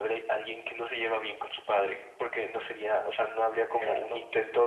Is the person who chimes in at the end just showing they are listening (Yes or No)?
Yes